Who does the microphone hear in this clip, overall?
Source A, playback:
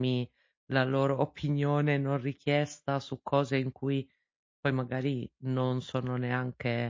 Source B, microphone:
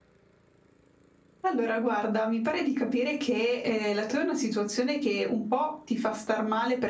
user only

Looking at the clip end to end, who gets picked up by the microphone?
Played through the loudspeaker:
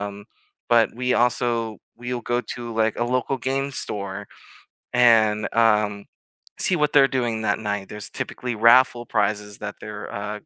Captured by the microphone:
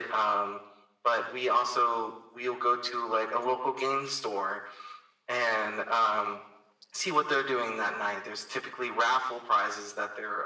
echo only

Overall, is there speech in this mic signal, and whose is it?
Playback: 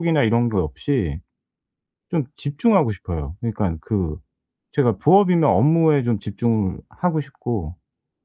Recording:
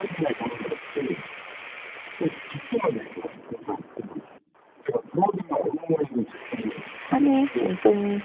both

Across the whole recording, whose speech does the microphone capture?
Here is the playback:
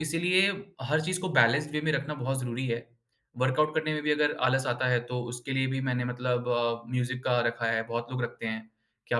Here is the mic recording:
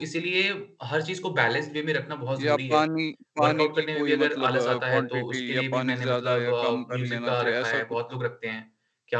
both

